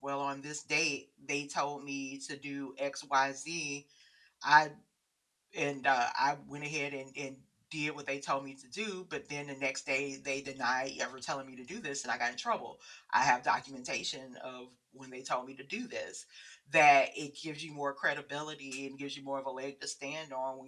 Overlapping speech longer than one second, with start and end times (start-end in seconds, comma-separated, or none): none